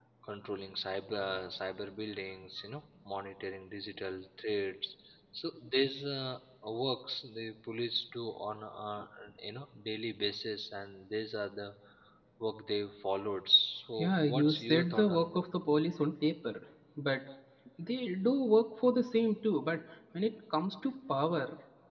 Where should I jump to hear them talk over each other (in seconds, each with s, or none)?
14.0 s